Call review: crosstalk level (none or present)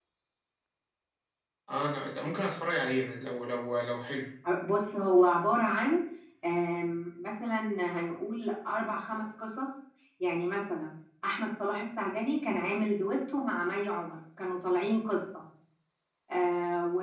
none